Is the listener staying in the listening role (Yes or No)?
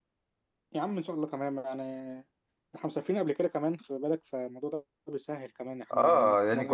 No